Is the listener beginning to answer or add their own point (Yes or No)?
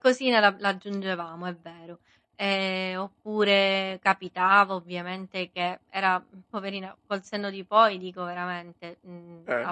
No